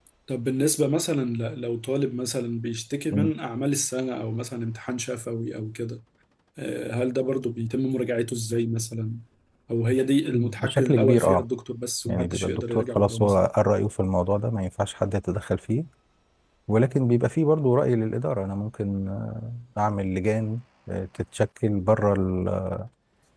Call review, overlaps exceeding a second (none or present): present